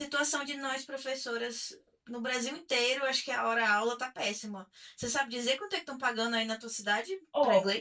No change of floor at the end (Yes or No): No